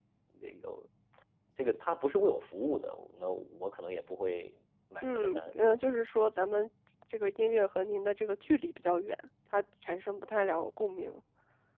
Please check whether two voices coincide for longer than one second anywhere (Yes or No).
No